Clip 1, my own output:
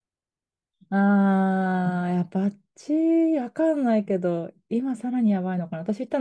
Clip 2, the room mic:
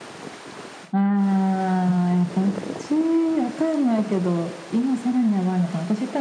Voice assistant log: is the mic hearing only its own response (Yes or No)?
Yes